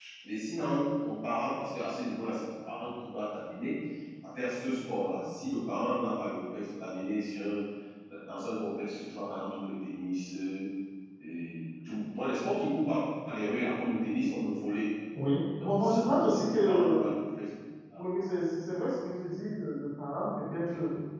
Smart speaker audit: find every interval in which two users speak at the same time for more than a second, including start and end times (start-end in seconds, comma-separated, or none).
15.6-17.1